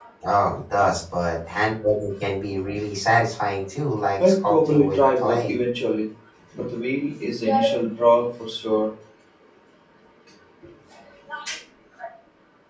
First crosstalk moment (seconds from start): 4.2 s

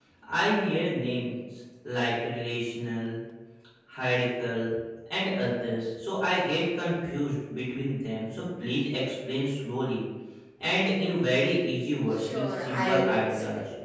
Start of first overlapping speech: 12.1 s

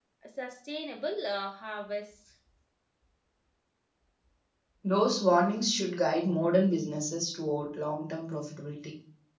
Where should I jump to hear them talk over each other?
none

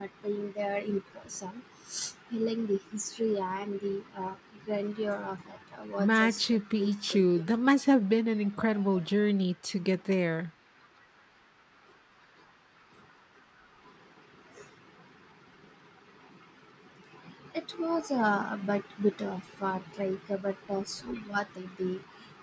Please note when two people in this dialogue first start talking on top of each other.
6.0 s

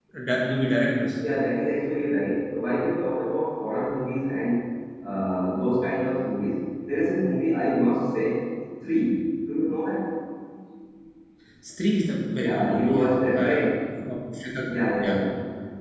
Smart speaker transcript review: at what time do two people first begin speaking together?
12.4 s

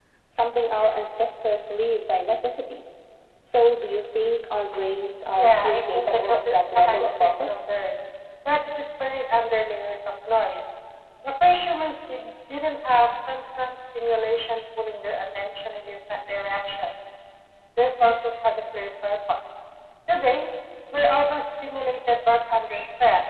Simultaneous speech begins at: 5.4 s

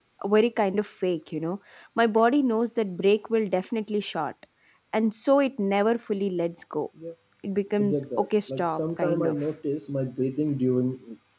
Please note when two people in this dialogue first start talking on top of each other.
7.8 s

